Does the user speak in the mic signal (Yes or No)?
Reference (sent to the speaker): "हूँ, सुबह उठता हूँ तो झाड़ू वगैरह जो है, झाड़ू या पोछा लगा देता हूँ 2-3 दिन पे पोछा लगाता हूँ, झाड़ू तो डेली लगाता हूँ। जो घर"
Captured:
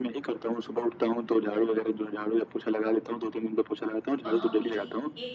Yes